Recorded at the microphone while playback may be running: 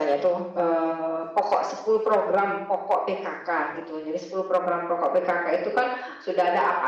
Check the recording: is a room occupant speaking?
No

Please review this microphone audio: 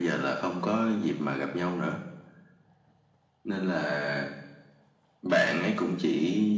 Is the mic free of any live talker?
Yes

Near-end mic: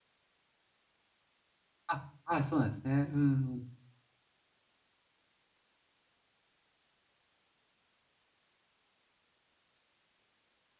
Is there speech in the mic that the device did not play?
Yes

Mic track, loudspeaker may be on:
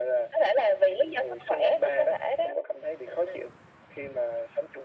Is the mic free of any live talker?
Yes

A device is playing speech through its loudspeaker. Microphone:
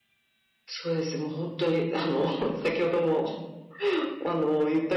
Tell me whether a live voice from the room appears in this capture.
No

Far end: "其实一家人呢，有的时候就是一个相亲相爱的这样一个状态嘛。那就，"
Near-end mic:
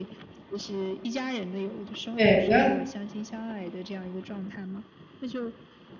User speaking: Yes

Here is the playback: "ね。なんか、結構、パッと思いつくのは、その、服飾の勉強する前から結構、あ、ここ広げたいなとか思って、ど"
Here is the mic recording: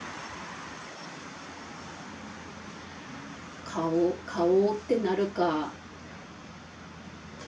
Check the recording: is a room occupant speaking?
Yes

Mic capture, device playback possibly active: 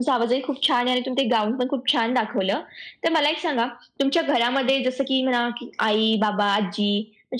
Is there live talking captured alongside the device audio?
No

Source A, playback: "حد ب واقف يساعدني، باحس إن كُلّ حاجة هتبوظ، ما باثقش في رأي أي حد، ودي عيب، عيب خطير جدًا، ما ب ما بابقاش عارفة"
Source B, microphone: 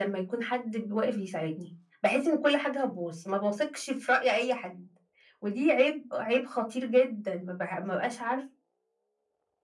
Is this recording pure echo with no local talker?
Yes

